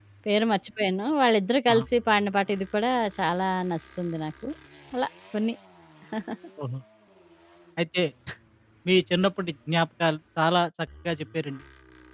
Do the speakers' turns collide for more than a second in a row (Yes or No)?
No